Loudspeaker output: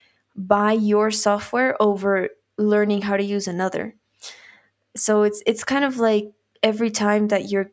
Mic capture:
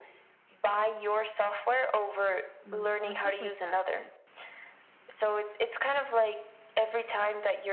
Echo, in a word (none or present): present